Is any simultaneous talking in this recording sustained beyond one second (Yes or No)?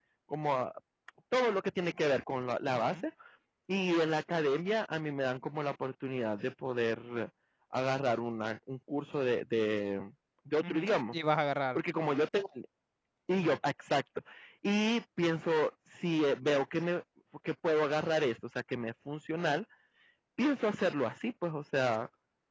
No